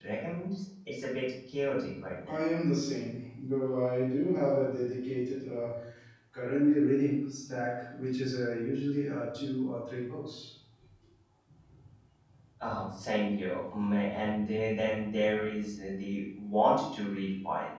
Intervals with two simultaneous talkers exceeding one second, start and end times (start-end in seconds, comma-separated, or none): none